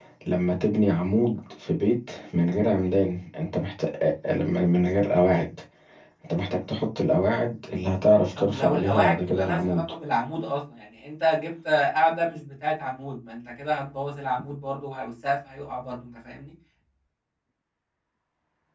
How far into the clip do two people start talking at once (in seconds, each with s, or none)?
8.3 s